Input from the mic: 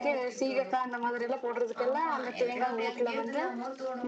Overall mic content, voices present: both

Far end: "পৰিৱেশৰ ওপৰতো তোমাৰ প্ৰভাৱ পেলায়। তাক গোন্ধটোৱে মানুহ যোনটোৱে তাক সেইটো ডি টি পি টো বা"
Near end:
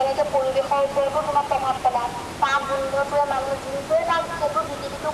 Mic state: echo only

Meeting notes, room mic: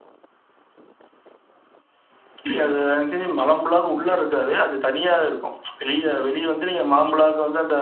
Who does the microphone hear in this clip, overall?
echo only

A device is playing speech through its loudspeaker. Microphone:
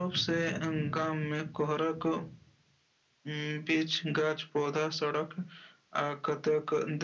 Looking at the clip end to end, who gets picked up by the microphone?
echo only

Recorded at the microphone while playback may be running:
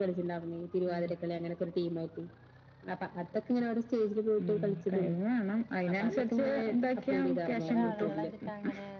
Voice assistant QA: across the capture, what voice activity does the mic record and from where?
both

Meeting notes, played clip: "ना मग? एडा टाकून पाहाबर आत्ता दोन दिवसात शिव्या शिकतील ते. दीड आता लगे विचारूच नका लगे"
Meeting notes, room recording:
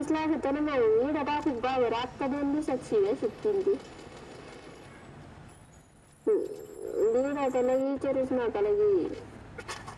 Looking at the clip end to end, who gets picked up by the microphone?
echo only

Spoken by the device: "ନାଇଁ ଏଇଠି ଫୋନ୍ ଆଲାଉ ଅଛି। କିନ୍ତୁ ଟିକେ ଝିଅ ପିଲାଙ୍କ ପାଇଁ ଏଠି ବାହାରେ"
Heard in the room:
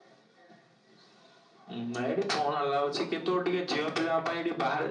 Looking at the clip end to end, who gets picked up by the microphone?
echo only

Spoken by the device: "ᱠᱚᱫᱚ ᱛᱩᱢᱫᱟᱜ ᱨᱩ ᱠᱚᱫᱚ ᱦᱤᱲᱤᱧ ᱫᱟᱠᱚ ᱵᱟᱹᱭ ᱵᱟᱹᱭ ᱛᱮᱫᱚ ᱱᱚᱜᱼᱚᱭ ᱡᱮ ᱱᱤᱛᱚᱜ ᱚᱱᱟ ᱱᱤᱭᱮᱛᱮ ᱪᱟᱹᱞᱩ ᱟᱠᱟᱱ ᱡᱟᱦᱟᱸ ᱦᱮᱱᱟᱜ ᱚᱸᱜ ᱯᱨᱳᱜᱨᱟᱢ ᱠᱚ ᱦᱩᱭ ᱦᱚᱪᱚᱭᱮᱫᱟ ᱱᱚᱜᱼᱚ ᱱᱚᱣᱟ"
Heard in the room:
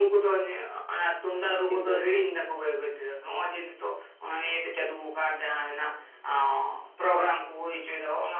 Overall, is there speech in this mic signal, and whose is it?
both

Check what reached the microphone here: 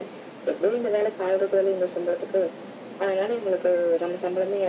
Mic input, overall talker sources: echo only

